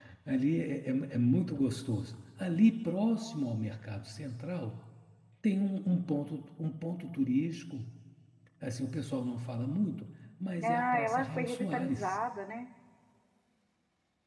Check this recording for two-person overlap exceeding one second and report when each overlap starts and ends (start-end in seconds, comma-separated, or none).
10.6-12.2